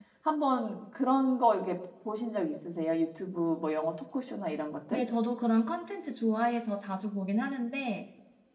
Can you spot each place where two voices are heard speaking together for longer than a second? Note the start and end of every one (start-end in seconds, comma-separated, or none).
none